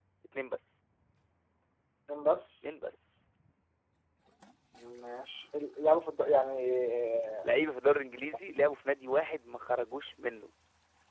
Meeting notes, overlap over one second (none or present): none